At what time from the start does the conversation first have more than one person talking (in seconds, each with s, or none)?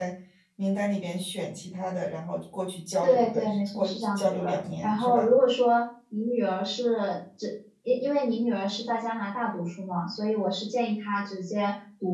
3.0 s